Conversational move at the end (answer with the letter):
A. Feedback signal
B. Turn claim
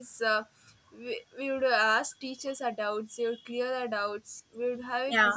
A